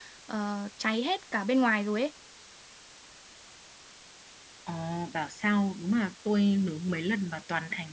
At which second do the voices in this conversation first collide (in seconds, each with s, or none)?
none